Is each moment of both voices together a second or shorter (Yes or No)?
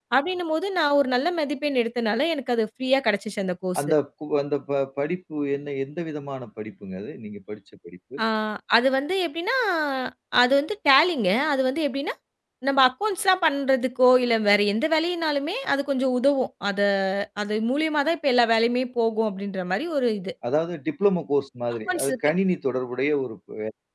Yes